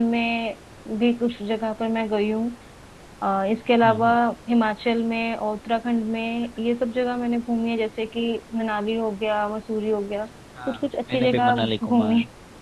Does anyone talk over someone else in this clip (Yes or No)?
Yes